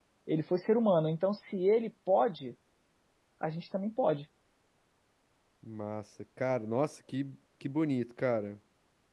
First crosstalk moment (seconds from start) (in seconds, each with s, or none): none